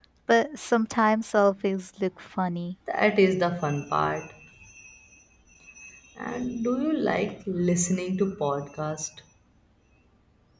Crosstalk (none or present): none